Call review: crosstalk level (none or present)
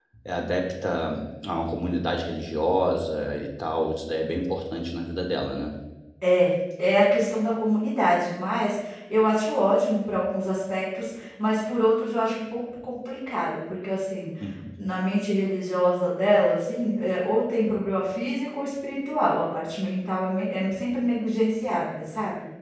none